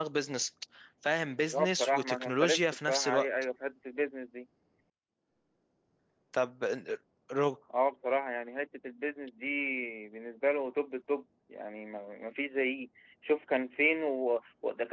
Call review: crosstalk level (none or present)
present